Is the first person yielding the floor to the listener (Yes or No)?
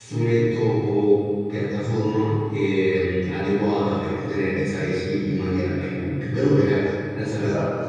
Yes